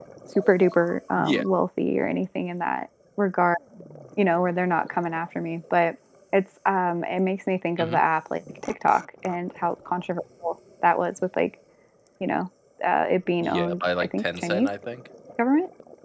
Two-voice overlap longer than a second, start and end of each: 13.4-14.7

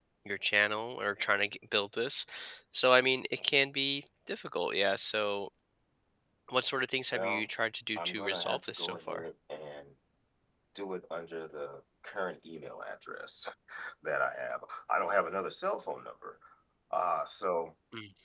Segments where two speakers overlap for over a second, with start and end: 8.0-9.2

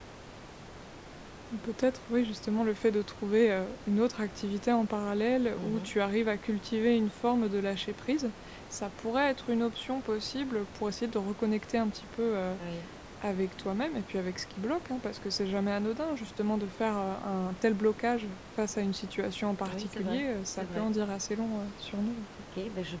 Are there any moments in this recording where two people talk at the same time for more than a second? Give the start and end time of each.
19.7-20.9

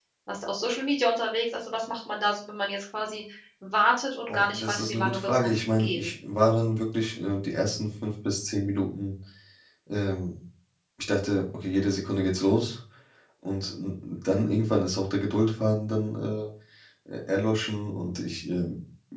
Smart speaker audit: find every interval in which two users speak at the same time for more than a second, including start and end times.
4.3-6.1

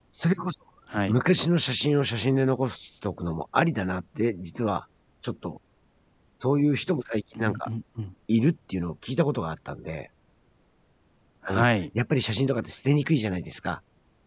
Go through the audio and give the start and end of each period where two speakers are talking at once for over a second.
none

